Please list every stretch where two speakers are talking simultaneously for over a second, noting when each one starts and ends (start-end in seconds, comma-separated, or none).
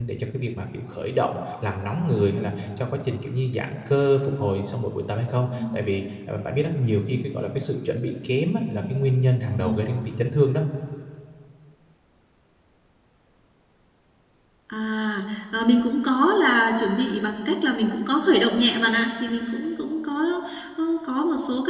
none